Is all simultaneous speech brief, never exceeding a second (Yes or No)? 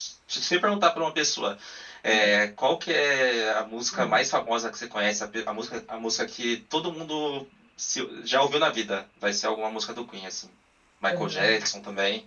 Yes